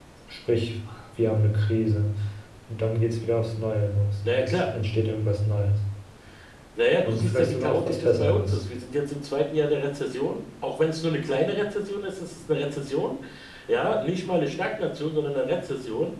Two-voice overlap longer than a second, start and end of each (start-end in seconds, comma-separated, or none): 7.0-8.6